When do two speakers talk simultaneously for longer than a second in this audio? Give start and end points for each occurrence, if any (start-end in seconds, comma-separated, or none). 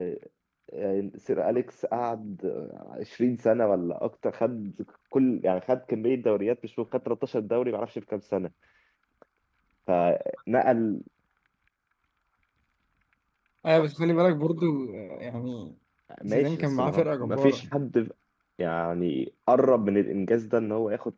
16.3-17.6